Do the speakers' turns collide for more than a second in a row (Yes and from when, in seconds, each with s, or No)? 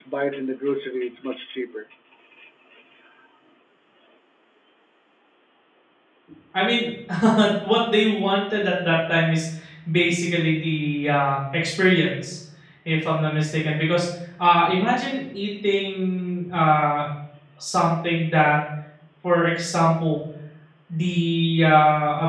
No